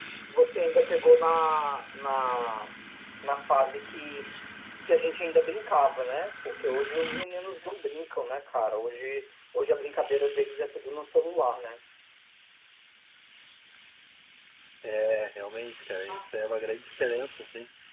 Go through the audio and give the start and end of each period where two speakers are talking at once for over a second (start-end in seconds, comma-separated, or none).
none